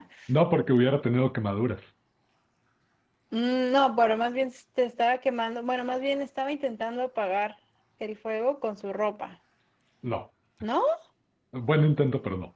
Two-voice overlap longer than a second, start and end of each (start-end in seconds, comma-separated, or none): none